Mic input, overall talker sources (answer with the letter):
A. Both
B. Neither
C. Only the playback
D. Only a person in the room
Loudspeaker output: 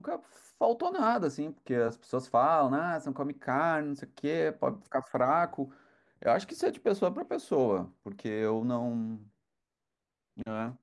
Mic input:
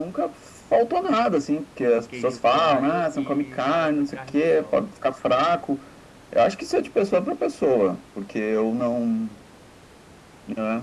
A